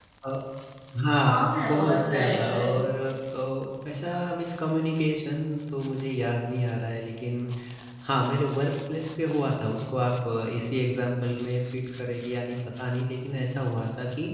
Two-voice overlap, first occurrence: 1.2 s

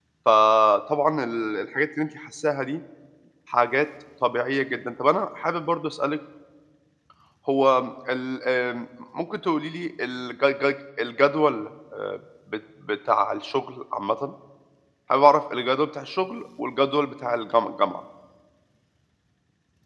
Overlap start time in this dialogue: none

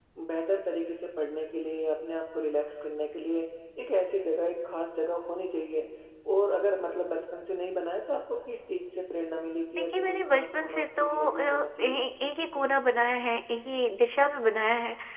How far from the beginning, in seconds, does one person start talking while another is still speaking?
9.8 s

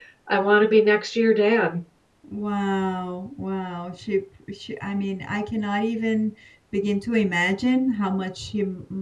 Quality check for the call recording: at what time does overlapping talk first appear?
none

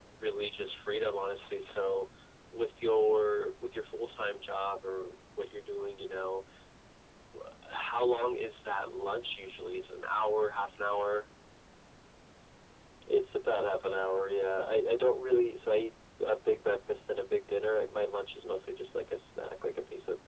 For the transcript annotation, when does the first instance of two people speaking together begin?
none

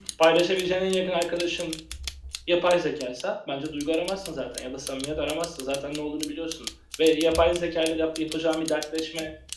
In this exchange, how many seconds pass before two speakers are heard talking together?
none

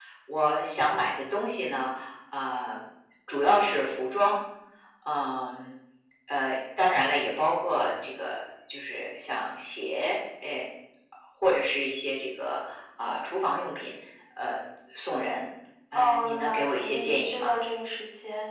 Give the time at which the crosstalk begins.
15.9 s

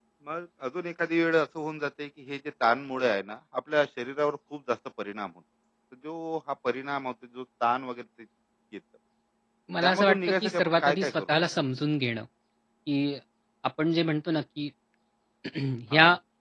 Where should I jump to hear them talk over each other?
9.8 s

